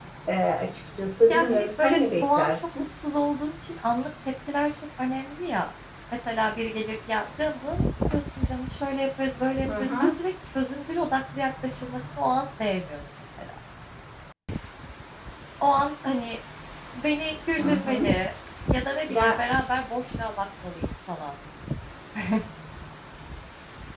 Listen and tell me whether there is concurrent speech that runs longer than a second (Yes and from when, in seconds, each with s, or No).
Yes, from 1.3 s